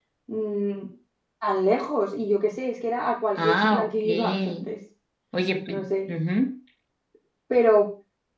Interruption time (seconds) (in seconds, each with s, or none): 3.4 s